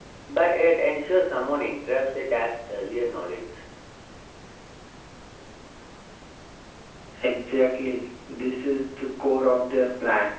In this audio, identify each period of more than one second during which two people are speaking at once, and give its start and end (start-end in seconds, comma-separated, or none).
none